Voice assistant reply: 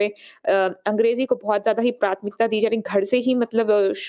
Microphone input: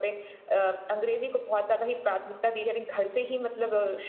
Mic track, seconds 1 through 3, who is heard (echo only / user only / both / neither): echo only